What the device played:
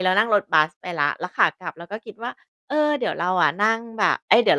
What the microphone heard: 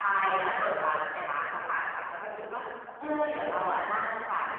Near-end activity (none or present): none